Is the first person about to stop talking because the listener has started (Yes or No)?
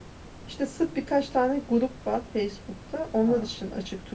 No